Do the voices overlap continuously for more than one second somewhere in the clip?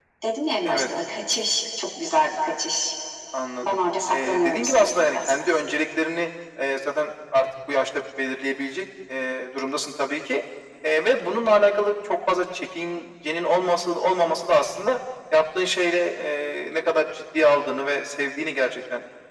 Yes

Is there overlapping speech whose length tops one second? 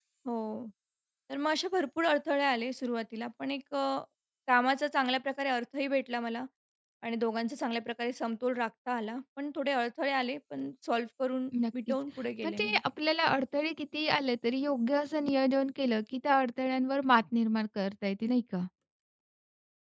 No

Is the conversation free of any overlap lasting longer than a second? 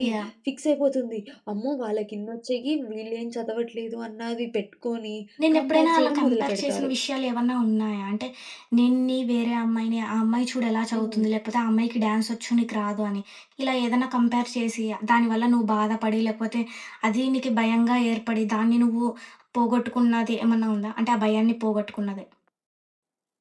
No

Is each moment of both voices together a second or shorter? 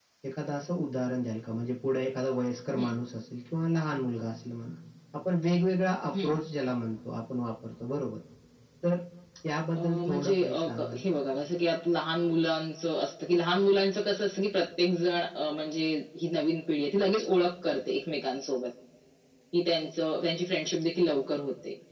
No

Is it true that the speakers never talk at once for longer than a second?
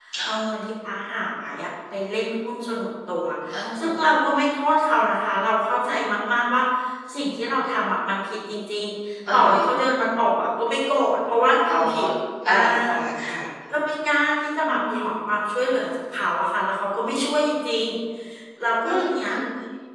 Yes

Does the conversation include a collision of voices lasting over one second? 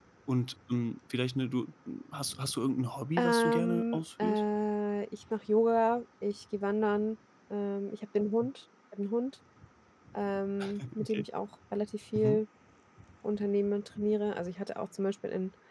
Yes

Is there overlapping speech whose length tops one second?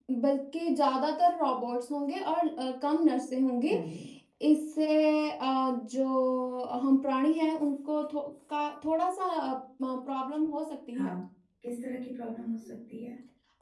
No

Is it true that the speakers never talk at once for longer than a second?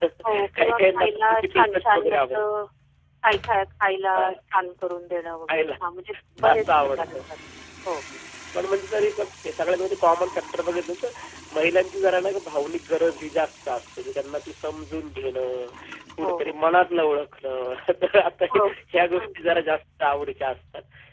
No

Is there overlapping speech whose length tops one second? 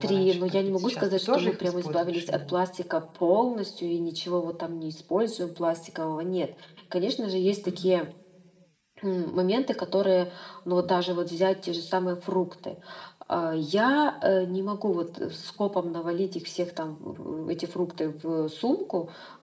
Yes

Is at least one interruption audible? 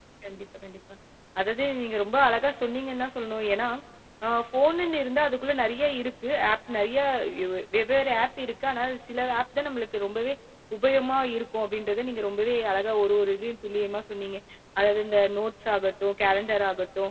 No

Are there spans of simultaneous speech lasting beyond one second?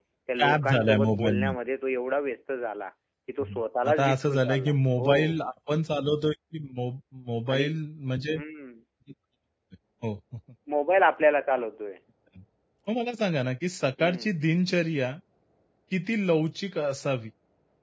Yes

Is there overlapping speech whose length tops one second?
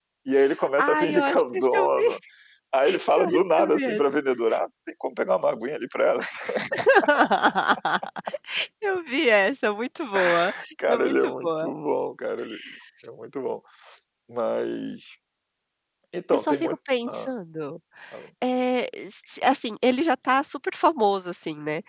Yes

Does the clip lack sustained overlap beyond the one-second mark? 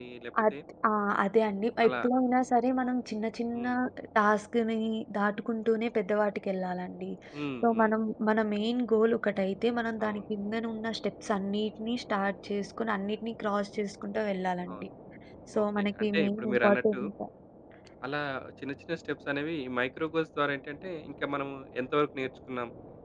No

